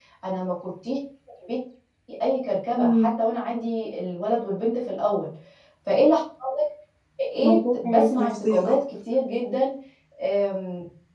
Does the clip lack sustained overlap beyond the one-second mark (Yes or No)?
No